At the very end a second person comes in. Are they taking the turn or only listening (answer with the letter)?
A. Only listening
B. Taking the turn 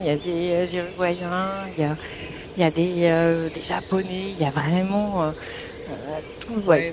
A